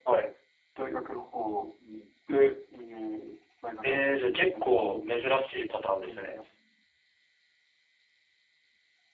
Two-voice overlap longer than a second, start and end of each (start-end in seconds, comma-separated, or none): 3.9-5.3